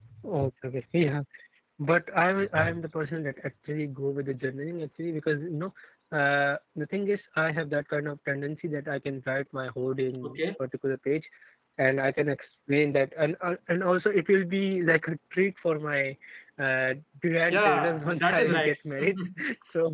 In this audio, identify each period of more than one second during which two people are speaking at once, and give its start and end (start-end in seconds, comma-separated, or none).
17.5-18.7